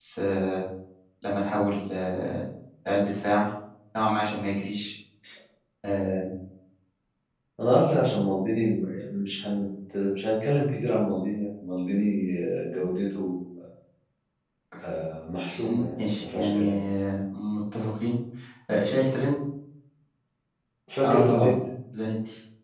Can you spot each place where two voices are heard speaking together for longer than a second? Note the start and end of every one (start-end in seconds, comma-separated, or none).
15.6-16.8